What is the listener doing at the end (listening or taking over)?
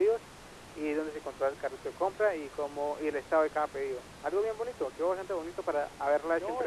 taking over